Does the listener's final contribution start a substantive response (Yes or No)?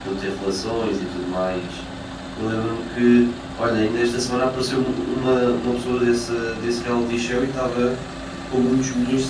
No